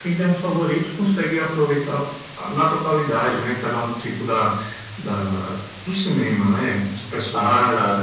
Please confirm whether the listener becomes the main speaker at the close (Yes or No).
Yes